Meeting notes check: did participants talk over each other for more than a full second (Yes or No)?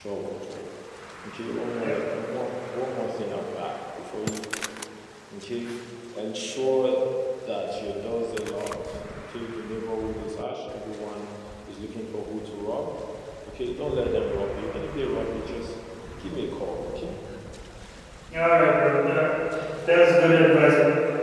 No